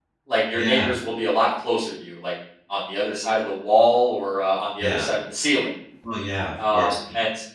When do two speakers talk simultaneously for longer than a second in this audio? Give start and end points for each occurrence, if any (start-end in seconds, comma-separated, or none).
none